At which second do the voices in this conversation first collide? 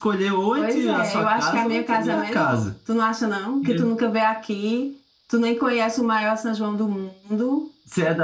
0.6 s

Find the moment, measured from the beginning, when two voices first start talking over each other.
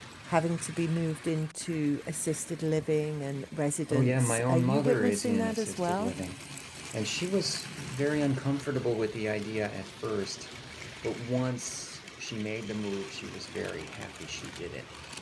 3.9 s

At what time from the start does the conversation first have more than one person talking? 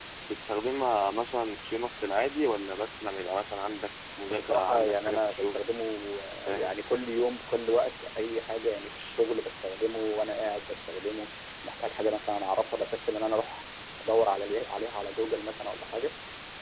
4.3 s

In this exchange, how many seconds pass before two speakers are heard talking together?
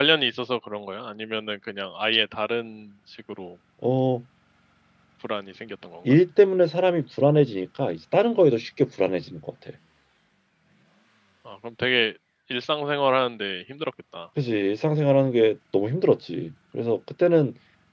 none

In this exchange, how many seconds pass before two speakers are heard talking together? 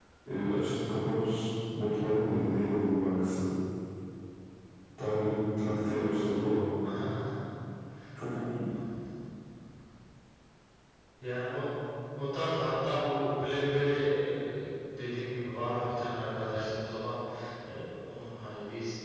none

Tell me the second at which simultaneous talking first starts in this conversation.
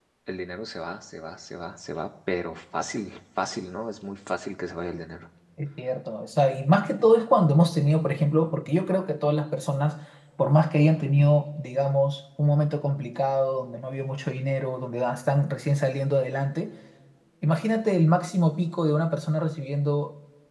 none

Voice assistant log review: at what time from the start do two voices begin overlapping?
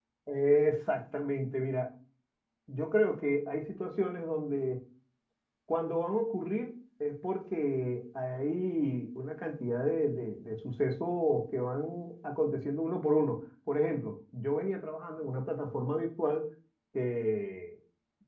none

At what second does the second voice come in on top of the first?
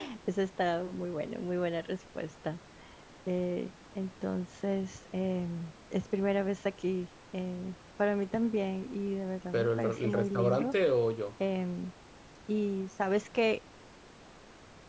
9.5 s

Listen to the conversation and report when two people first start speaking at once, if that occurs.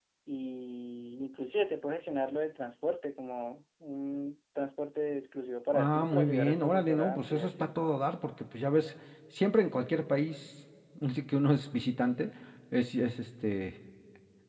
5.7 s

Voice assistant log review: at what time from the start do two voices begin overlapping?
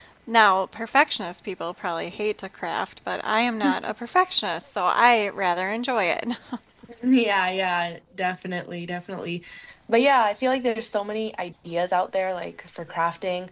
none

